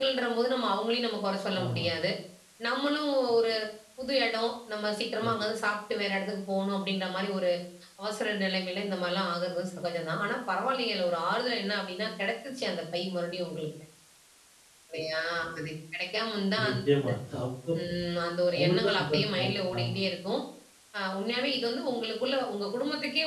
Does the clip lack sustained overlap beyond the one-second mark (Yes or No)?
No